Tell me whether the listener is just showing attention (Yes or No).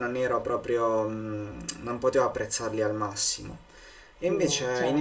Yes